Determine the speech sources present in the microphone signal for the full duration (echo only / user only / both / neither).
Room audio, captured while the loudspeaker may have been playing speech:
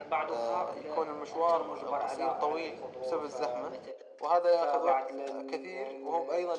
echo only